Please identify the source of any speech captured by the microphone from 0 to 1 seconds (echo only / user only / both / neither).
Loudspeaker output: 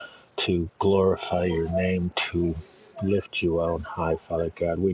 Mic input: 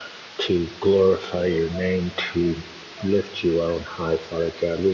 echo only